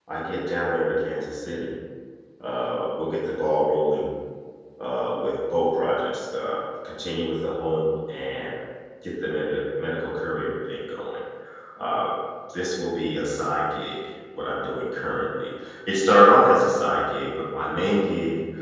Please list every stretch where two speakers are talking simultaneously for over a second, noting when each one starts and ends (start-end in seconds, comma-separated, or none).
none